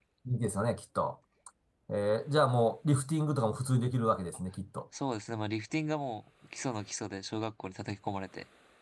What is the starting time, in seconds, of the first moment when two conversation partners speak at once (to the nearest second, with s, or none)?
none